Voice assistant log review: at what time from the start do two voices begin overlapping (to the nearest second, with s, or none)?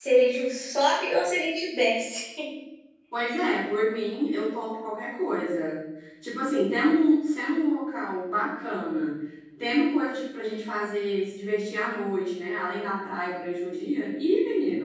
none